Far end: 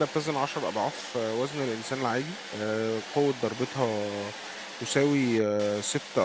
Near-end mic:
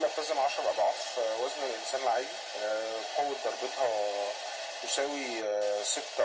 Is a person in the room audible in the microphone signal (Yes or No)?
No